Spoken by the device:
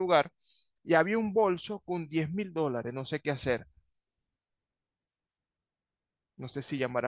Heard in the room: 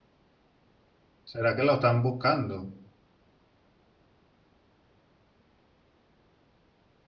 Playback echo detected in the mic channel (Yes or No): No